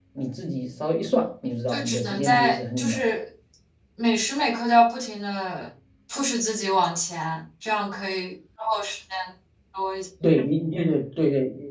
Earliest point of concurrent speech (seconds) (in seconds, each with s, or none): 1.7 s